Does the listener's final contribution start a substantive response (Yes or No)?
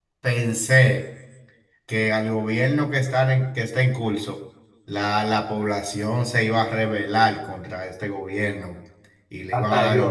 No